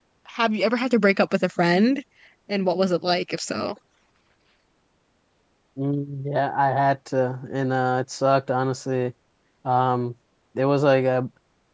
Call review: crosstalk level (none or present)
none